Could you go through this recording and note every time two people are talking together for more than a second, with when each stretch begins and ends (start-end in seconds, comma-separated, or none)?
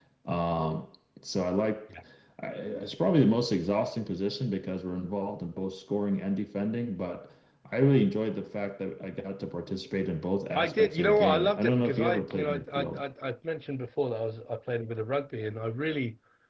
10.6-13.0